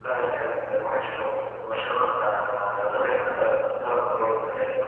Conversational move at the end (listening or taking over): listening